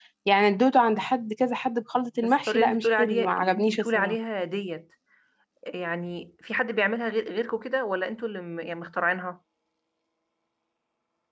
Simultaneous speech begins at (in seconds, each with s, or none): 2.2 s